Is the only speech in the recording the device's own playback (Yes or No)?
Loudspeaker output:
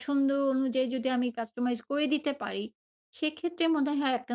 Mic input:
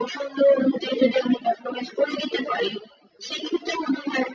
Yes